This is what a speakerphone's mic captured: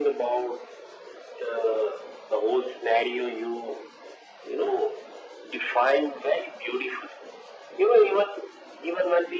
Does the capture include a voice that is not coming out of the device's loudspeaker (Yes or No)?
No